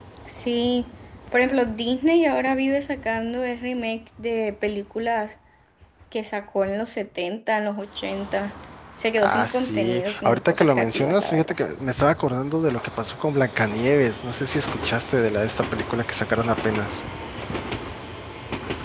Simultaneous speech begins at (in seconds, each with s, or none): 9.2 s